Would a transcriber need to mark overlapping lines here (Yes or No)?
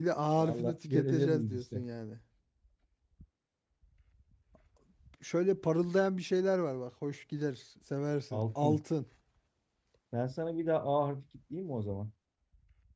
Yes